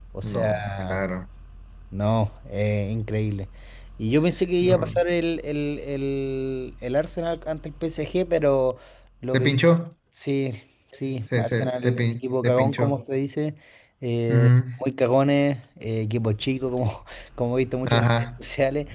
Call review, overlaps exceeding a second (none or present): present